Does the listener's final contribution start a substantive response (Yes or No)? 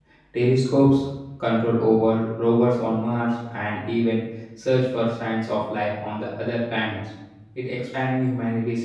No